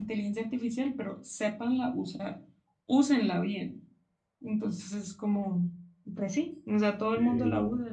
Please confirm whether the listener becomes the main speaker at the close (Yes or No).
No